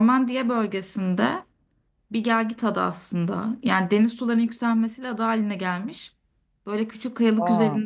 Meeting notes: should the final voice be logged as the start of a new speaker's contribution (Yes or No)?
No